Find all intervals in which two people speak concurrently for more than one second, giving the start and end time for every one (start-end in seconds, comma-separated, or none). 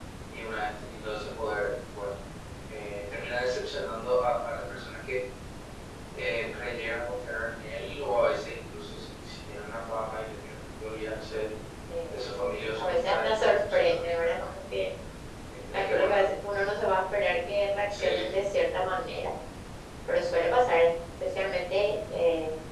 12.7-14.4